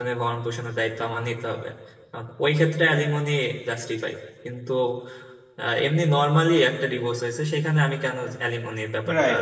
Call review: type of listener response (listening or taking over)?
taking over